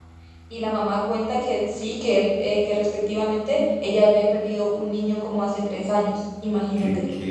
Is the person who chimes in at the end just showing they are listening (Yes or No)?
No